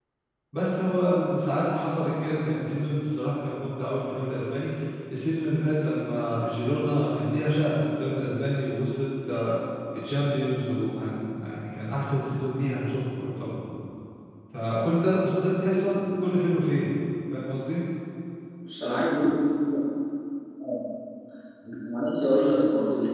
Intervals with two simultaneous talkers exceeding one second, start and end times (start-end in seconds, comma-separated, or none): none